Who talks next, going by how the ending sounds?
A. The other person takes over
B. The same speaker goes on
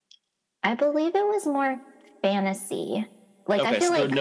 A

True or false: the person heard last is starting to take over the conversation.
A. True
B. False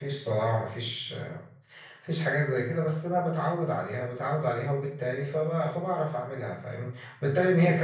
B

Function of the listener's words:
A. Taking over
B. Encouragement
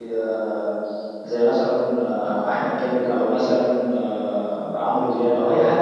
B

